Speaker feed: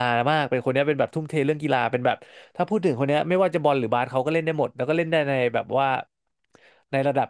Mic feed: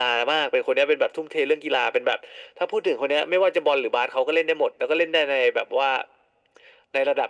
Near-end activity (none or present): none